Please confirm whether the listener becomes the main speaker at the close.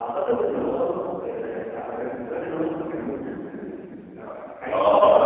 Yes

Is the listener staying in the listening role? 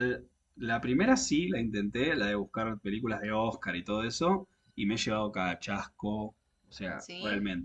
Yes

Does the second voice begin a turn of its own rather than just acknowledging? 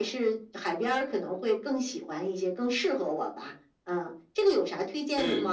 Yes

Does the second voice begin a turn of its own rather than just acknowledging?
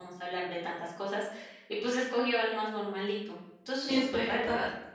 Yes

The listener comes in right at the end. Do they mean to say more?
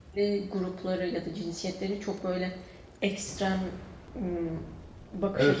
Yes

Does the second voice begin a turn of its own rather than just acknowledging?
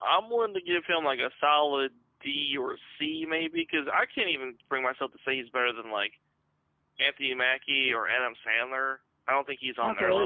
Yes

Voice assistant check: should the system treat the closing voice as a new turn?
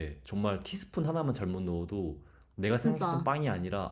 No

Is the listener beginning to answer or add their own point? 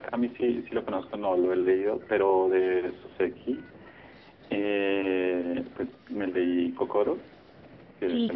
Yes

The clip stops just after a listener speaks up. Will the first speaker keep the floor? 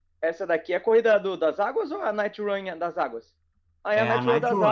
No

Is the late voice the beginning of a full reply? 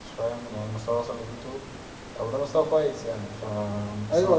Yes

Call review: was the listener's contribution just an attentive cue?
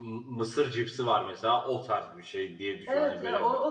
No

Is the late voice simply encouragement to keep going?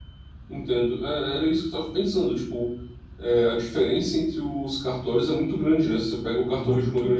Yes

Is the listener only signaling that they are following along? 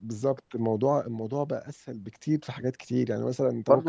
No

